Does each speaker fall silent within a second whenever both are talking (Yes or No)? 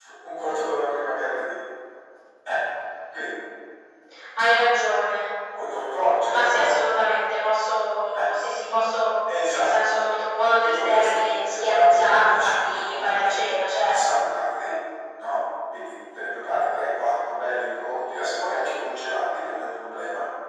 No